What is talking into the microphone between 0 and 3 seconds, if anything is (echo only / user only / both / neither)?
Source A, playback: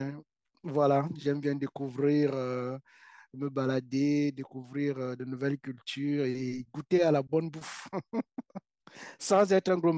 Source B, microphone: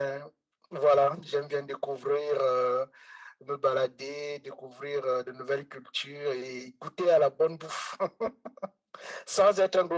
echo only